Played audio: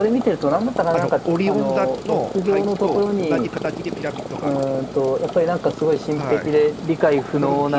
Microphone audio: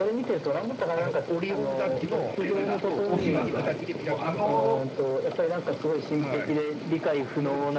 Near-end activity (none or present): present